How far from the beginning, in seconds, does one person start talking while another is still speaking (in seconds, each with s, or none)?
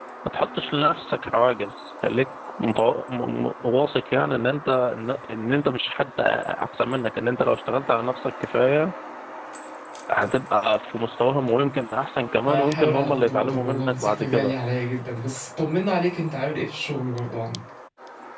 12.4 s